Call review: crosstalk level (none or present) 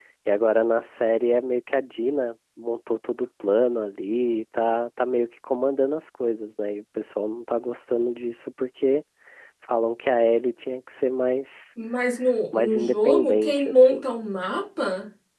present